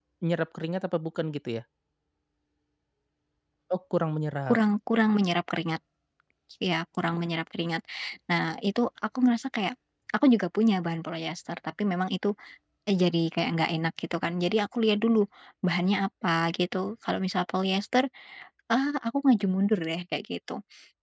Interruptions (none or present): none